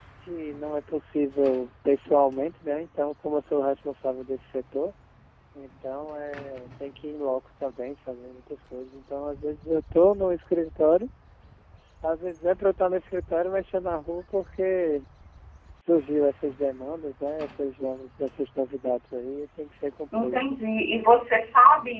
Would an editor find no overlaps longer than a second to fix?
Yes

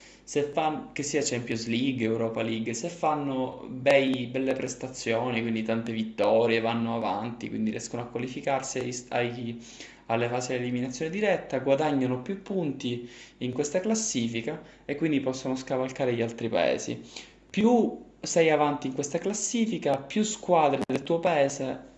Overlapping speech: No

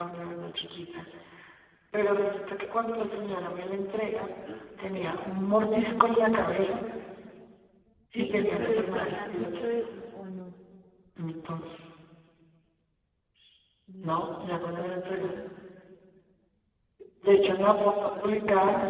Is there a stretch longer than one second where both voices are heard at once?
Yes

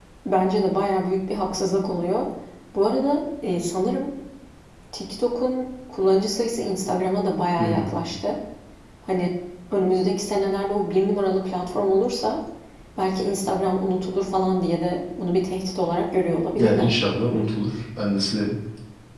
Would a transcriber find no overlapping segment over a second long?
Yes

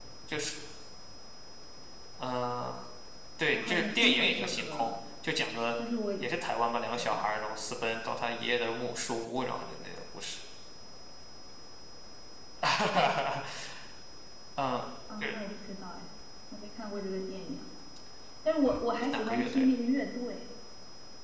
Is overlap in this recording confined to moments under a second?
No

